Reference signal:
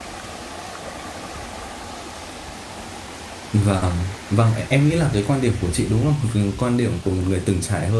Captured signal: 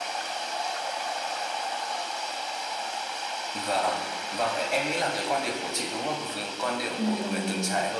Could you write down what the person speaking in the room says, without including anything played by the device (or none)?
ừ,